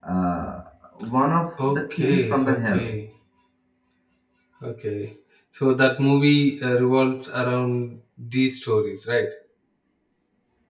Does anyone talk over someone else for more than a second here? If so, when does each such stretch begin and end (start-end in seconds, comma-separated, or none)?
1.6-2.9